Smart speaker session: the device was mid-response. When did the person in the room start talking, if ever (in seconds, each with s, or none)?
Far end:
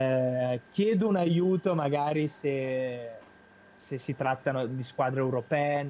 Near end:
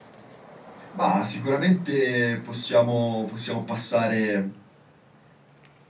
0.9 s